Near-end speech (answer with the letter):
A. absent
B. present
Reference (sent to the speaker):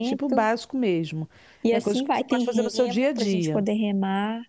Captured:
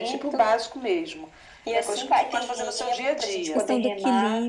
B